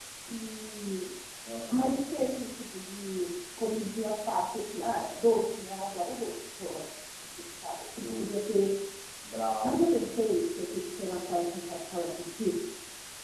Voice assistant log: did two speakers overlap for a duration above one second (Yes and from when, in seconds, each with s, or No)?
No